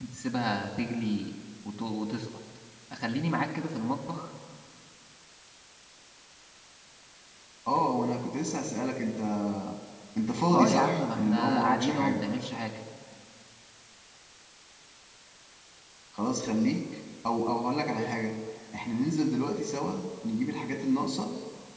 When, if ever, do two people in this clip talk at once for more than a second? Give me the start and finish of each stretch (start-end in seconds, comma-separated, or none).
10.5-12.3